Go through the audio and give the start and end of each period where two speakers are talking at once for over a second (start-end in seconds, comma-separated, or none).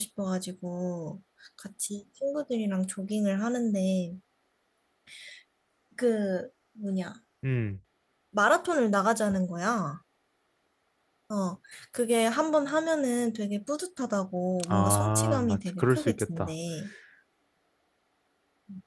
14.7-16.5